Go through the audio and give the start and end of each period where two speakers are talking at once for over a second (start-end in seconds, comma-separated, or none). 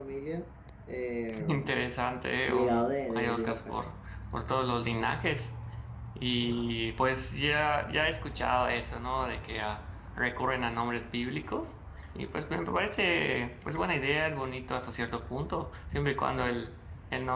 2.5-3.8